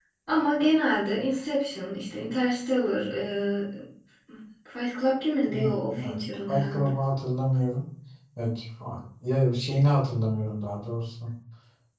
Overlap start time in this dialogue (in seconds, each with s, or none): 5.5 s